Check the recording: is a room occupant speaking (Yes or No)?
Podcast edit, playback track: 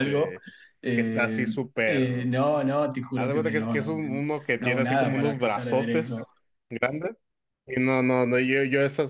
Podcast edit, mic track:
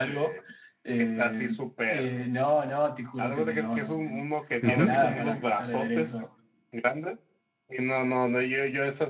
Yes